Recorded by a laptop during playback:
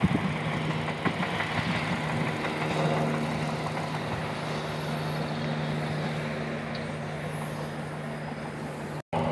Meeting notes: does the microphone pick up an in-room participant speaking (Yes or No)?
No